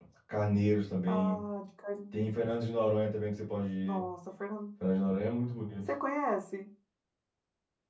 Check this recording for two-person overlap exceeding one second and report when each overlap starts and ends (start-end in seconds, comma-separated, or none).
none